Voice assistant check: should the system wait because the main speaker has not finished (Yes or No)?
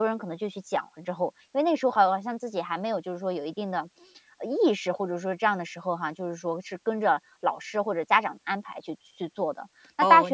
No